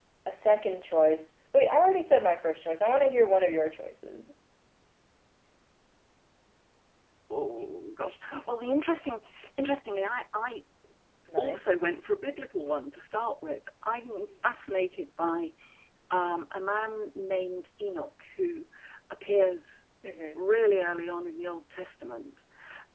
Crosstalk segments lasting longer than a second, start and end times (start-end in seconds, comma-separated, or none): none